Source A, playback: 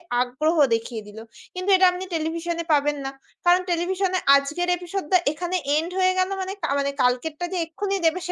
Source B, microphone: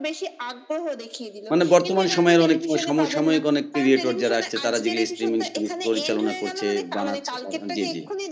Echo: present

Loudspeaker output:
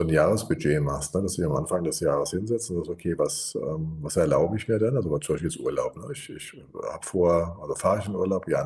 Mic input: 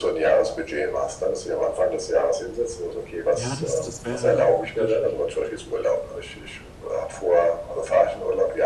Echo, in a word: present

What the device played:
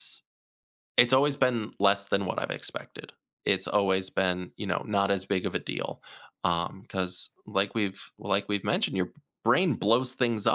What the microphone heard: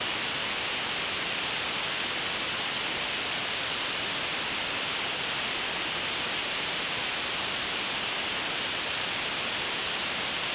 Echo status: none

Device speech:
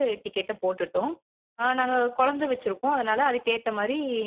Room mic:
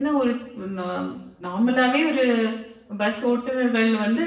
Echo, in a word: none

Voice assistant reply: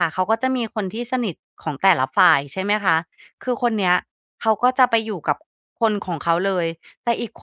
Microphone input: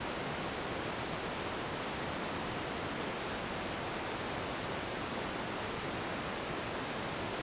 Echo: none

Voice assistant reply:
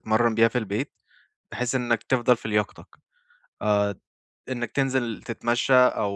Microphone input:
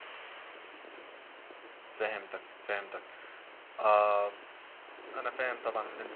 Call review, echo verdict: none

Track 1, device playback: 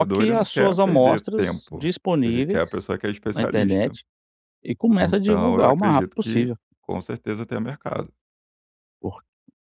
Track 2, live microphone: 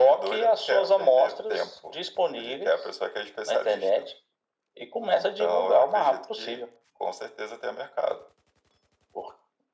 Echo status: present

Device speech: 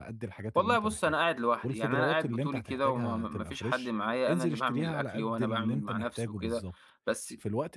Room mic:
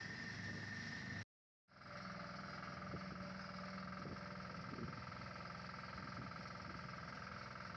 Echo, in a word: none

